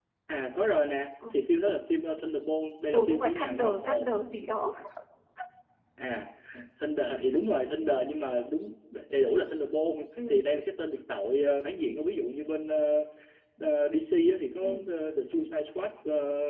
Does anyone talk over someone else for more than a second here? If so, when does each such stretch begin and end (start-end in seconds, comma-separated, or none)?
2.9-4.2